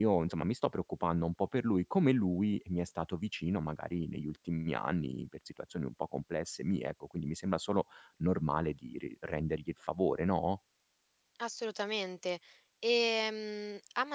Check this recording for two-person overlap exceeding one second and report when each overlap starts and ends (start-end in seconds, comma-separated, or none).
none